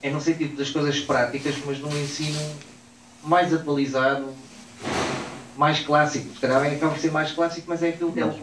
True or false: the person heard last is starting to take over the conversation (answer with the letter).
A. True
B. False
B